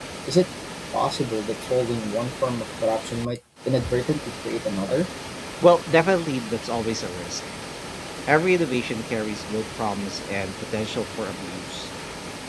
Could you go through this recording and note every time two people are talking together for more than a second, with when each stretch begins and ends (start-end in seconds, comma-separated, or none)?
none